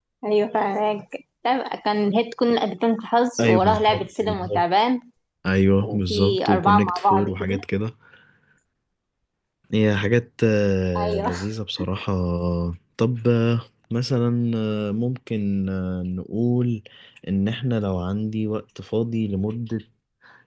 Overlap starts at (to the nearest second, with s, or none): 3 s